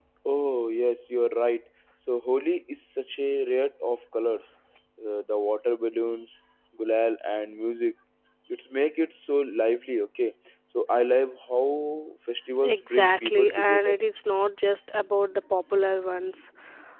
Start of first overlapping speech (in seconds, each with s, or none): 12.6 s